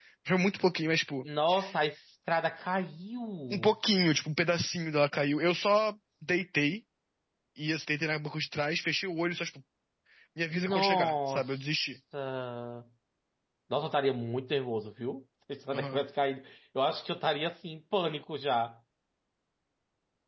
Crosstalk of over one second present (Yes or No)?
Yes